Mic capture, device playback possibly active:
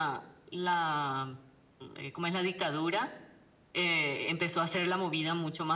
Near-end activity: none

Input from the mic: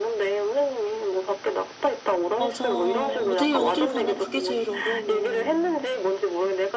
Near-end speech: present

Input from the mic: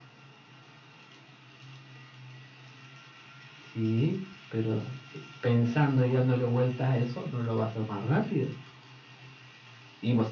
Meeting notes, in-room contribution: none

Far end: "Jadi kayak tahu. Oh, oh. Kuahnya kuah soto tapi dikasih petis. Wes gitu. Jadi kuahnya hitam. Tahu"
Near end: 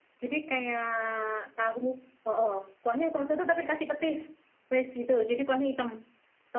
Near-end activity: none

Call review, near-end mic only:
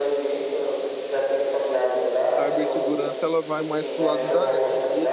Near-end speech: present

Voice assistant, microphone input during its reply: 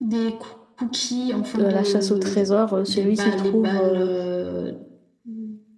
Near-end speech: present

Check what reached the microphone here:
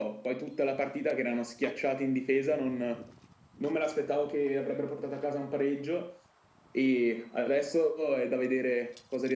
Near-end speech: none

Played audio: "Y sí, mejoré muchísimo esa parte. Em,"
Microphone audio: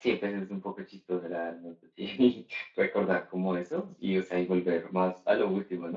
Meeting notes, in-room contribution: present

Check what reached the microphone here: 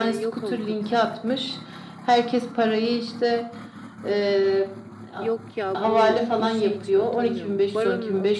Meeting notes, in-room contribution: present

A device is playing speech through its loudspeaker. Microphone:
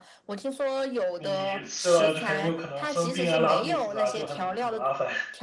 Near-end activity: present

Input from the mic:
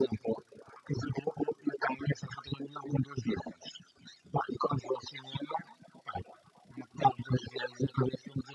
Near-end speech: none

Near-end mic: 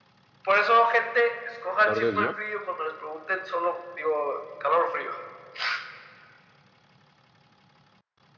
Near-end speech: present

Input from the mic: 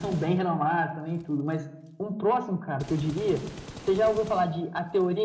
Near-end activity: none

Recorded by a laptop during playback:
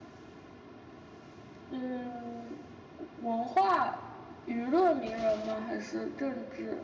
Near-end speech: none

